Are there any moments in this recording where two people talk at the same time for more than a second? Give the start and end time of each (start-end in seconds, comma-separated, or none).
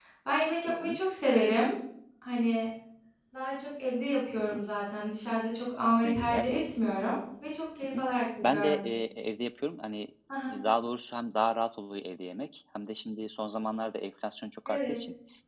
none